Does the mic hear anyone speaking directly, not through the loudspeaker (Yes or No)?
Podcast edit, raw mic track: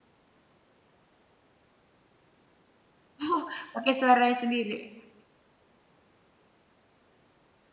Yes